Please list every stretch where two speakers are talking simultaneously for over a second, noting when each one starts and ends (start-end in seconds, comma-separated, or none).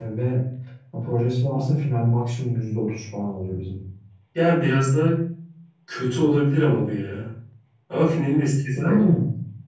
none